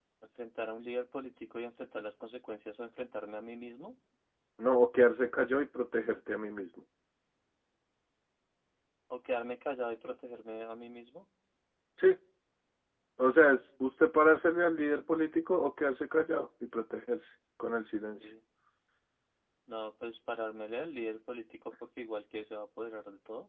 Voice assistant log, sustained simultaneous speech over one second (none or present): none